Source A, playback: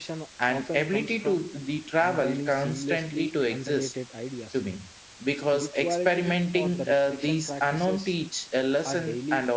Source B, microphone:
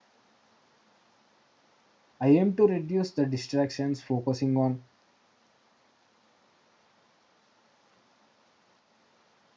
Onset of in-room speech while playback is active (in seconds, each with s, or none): 2.2 s